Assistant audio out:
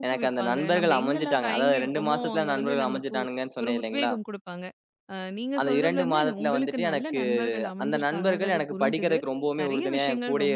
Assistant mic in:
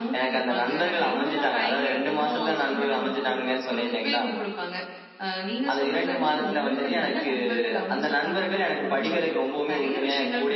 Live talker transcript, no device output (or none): none